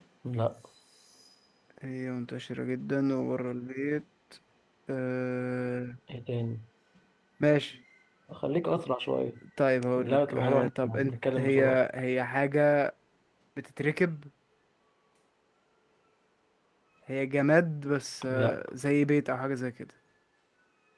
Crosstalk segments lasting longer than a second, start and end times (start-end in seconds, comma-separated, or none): 10.0-11.8